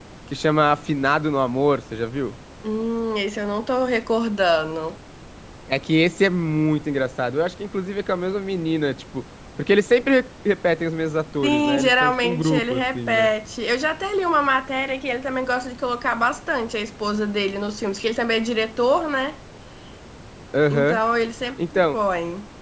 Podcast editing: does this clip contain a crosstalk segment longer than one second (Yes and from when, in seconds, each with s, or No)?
Yes, from 11.4 s